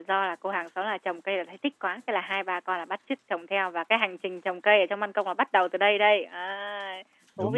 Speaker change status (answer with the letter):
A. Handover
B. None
A